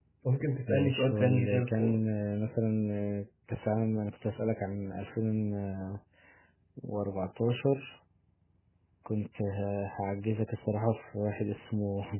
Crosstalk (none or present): present